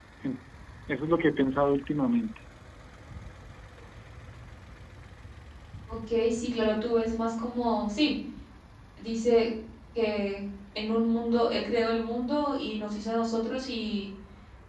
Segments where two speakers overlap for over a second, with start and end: none

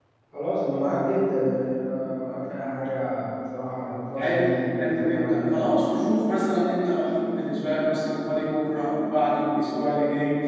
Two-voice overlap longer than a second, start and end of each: 4.2-5.5

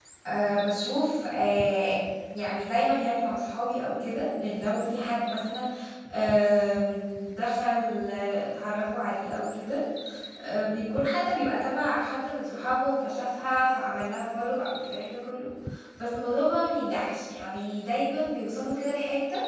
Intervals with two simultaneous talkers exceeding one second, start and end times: none

